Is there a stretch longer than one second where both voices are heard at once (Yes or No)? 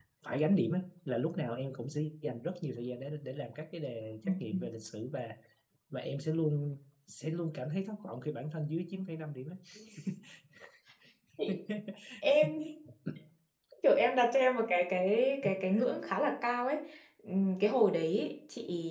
No